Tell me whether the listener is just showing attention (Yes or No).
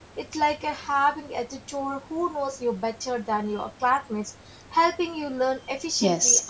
No